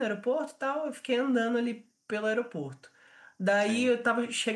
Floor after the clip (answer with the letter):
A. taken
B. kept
B